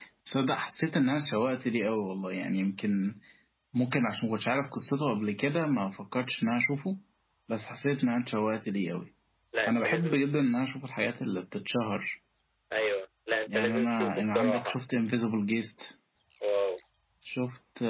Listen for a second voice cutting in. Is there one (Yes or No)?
Yes